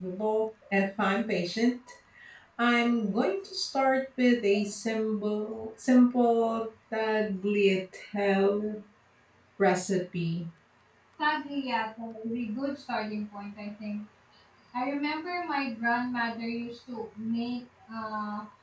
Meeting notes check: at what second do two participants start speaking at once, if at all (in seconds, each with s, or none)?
none